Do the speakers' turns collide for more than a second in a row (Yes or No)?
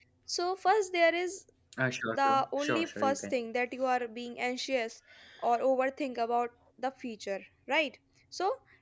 Yes